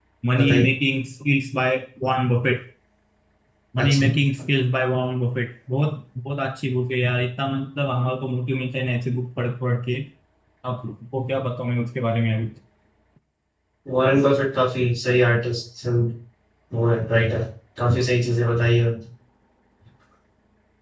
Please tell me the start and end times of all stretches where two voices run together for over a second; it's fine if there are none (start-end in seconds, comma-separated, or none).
none